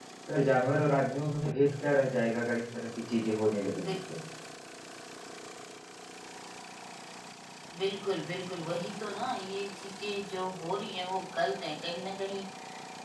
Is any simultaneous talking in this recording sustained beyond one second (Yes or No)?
No